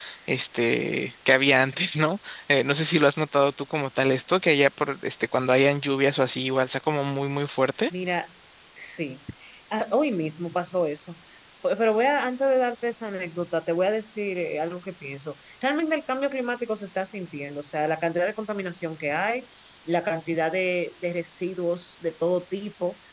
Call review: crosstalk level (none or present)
none